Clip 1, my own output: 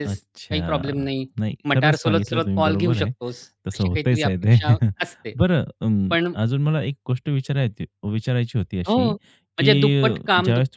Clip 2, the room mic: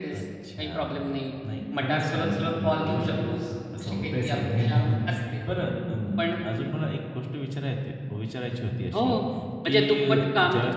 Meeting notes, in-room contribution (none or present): none